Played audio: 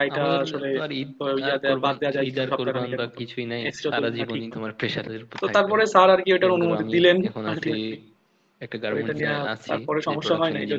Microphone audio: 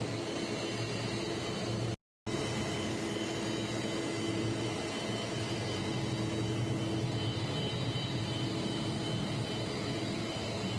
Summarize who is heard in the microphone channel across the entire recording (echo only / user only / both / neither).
neither